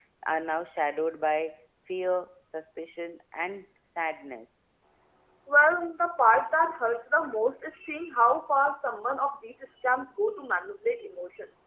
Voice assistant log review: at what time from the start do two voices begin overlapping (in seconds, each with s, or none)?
none